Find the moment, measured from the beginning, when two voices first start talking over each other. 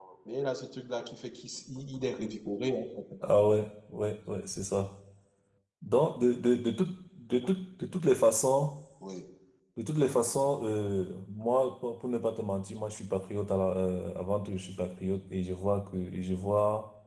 none

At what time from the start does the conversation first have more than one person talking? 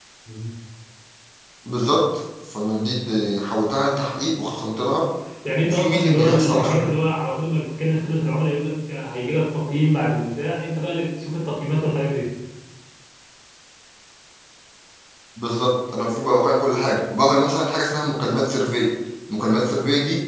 5.6 s

